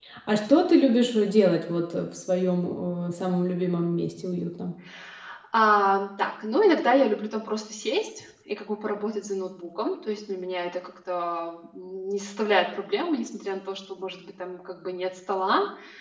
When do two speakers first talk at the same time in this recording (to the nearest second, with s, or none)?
none